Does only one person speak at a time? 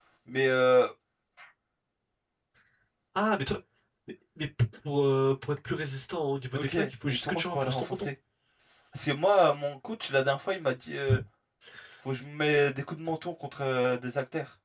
No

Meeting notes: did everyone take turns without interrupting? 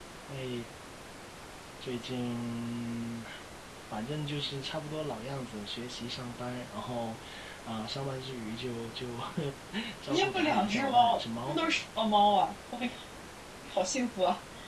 No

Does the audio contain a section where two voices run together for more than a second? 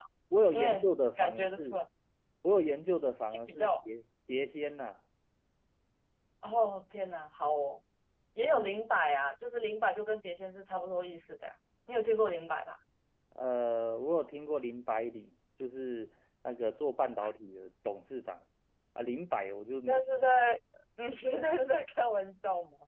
Yes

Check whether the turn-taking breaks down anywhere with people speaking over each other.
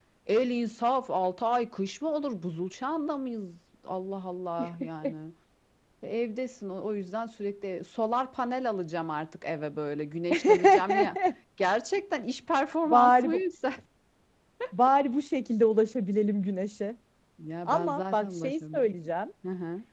Yes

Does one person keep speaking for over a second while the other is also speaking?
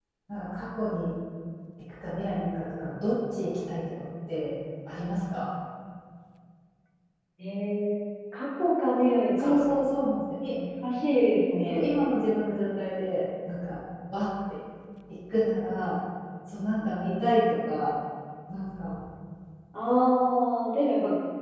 No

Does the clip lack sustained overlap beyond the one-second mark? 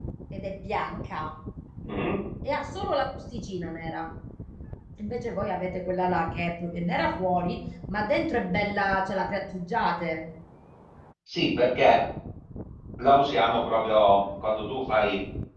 Yes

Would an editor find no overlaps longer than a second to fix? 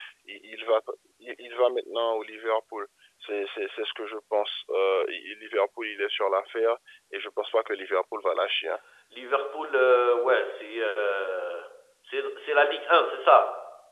Yes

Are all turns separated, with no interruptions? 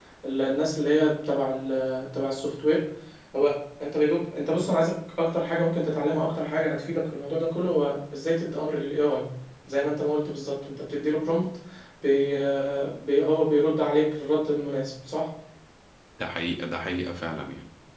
Yes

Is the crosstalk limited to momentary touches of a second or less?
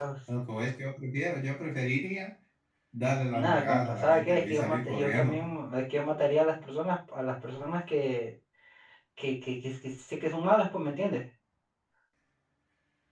No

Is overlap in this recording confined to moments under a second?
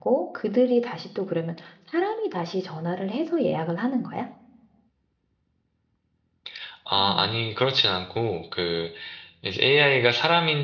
Yes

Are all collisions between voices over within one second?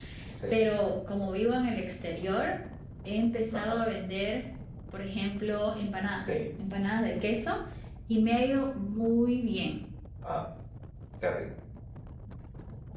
Yes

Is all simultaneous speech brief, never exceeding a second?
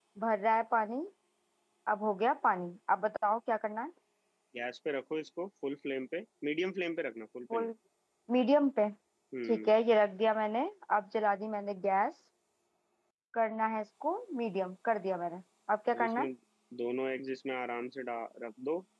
Yes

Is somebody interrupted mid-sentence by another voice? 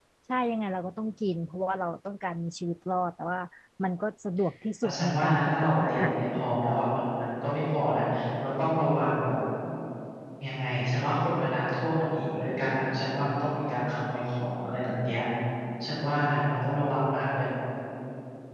Yes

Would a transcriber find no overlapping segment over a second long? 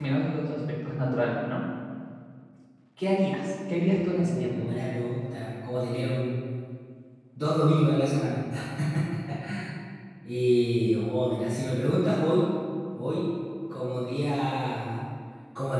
Yes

